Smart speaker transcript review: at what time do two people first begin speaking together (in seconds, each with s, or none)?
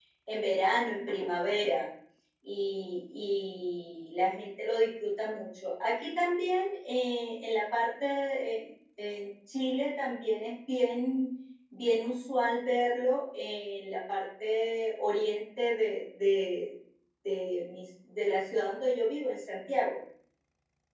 none